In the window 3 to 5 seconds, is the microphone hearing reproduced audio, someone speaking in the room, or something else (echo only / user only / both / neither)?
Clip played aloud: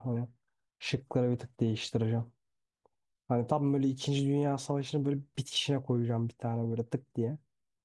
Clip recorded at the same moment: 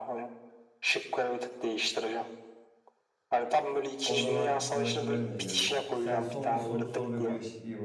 both